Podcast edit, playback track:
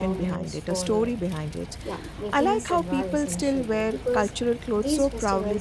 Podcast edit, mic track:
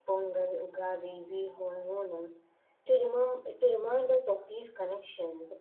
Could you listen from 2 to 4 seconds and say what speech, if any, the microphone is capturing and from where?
user only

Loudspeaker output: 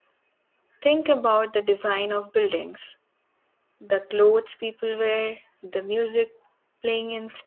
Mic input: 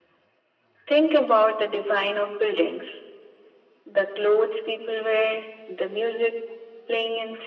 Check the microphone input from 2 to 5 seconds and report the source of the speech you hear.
echo only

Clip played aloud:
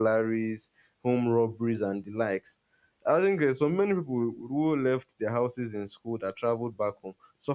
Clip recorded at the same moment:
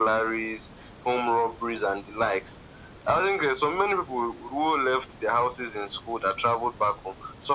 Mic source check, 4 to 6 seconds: echo only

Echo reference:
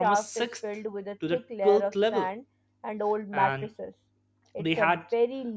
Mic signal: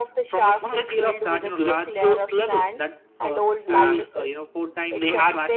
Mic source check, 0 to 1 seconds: both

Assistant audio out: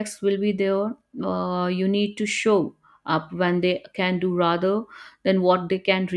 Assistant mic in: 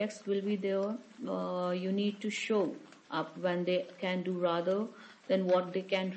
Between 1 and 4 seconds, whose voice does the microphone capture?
echo only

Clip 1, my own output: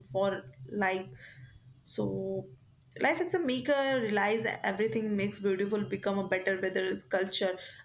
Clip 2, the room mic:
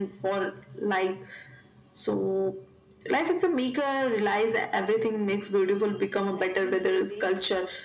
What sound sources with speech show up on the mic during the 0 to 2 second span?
echo only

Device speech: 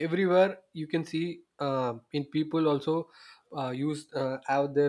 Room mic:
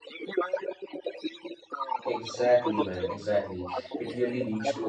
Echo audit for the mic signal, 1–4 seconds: both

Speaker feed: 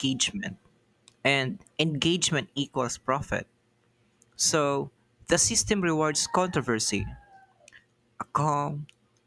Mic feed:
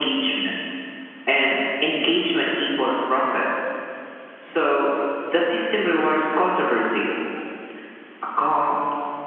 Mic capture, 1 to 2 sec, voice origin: echo only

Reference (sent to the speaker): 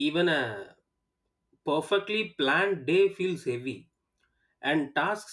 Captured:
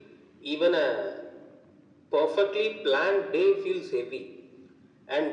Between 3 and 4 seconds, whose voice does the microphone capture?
echo only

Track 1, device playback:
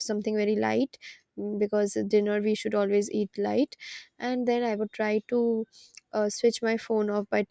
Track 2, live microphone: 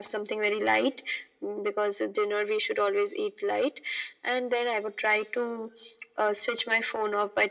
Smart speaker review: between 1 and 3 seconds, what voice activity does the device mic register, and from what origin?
echo only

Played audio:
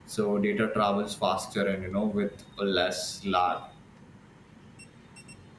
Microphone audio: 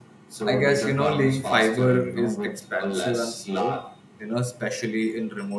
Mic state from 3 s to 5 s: both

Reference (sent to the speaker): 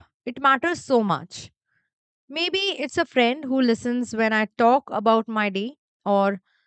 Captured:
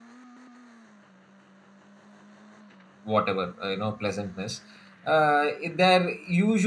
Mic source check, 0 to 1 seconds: neither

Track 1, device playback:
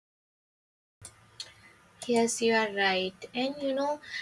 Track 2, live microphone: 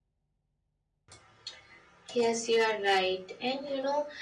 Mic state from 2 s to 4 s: echo only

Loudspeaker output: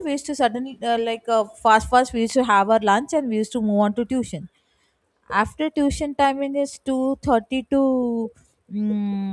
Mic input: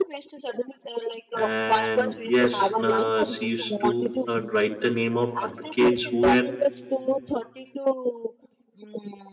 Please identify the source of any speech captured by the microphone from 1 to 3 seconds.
both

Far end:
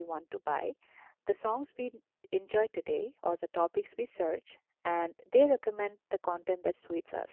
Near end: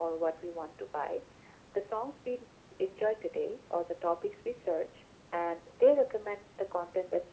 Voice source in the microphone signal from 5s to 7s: echo only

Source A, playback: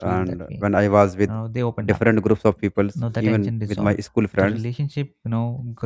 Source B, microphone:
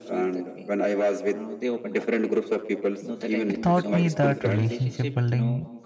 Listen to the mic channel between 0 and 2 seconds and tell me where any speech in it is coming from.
echo only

